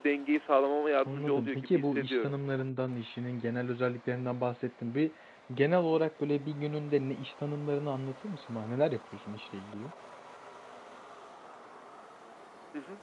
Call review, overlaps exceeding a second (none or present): present